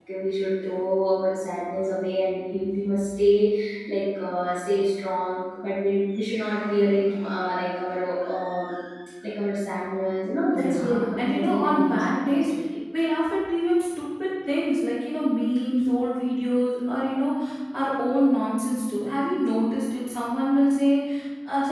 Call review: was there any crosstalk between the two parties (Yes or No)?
Yes